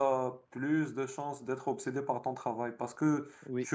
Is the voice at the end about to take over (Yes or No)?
No